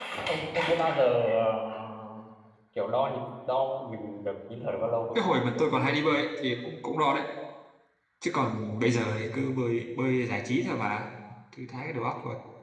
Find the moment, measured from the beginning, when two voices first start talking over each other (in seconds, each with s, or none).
none